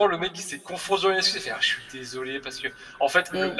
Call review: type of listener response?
listening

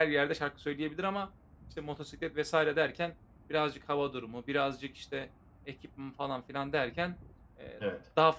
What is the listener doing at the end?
listening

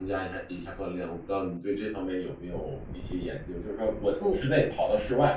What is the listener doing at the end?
listening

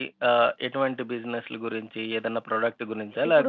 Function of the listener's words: taking over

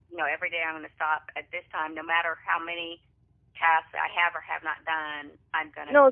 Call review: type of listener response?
taking over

